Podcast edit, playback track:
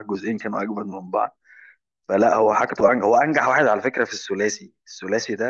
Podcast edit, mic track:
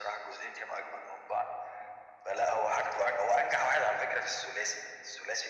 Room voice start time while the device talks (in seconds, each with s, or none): none